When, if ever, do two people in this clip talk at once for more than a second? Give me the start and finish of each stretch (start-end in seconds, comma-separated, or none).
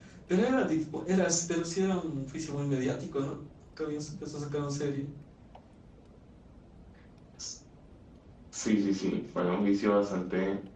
none